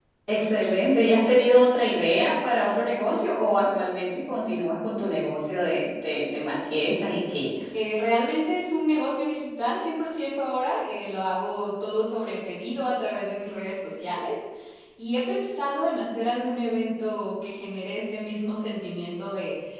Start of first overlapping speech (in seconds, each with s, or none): none